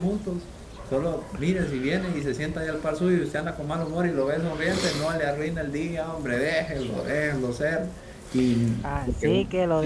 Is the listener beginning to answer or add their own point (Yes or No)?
Yes